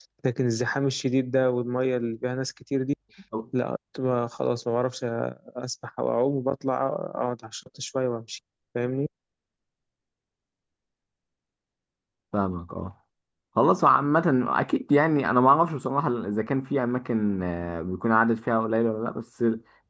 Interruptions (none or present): none